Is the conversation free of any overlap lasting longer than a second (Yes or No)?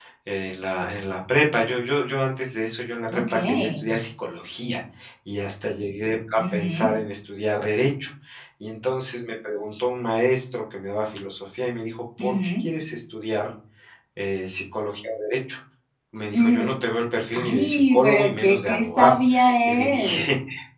No